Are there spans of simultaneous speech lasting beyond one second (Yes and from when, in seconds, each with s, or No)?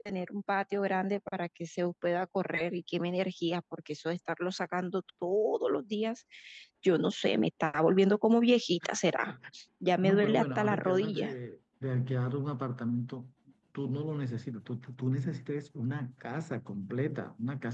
Yes, from 10.0 s